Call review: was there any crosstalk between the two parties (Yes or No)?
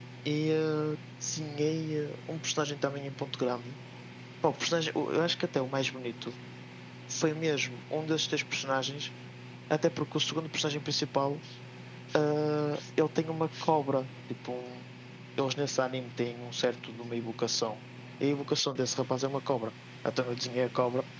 No